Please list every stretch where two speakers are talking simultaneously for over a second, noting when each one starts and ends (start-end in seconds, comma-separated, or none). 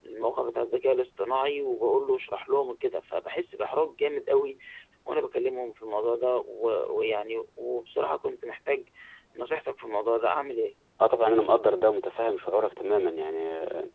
none